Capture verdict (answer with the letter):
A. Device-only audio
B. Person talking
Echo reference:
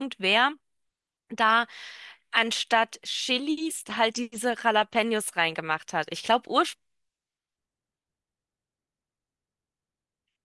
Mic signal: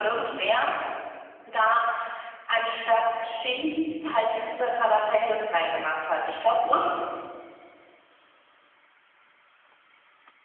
A